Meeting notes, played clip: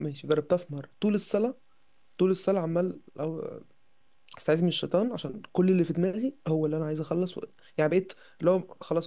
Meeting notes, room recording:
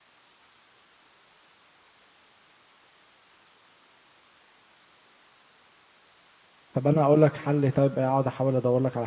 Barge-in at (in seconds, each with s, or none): 6.7 s